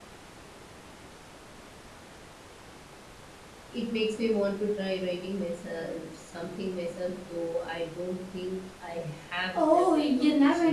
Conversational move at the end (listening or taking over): taking over